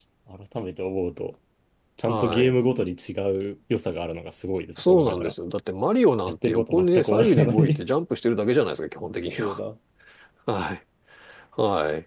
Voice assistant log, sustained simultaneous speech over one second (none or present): present